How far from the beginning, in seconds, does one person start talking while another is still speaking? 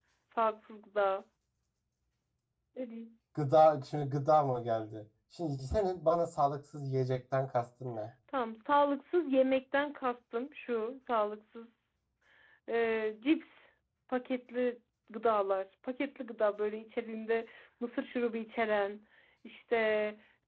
none

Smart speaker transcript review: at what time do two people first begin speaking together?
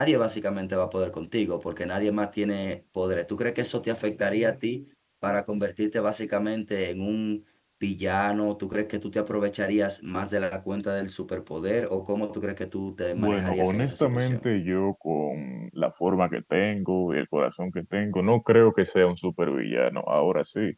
13.2 s

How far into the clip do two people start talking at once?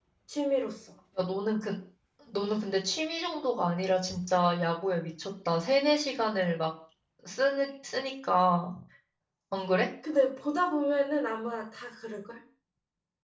none

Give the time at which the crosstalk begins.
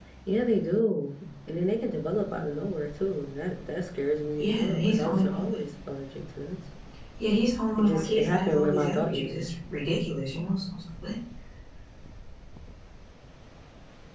4.4 s

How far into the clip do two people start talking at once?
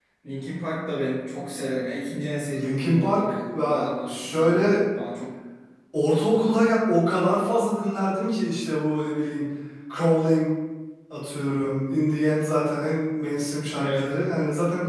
2.5 s

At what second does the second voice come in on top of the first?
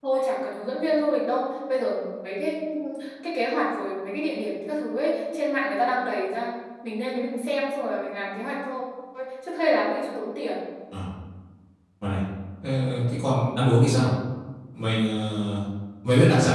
none

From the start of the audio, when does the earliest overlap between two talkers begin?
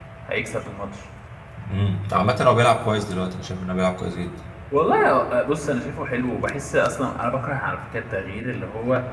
none

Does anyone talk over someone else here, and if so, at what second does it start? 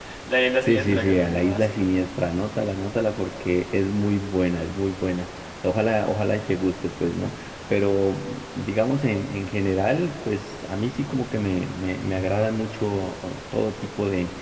0.7 s

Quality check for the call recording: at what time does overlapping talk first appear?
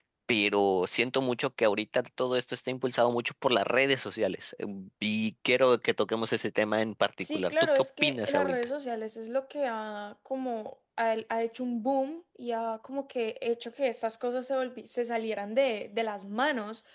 7.2 s

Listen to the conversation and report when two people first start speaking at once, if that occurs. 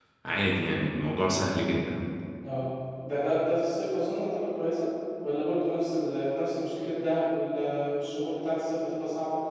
none

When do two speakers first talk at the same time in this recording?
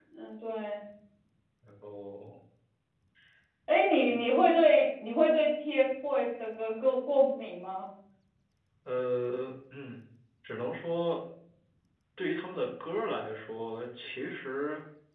none

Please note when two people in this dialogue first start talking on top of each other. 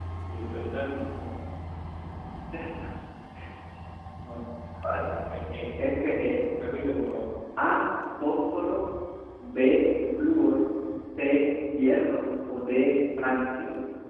none

